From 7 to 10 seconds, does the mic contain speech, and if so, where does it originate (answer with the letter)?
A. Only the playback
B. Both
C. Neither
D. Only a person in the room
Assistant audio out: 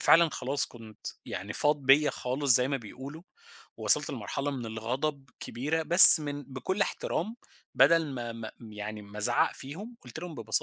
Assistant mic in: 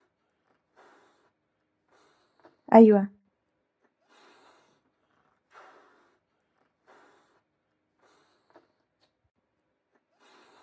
C